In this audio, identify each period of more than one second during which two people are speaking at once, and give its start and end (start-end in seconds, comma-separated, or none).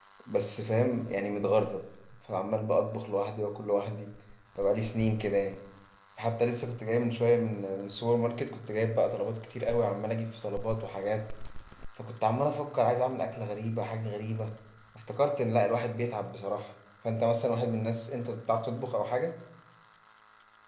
none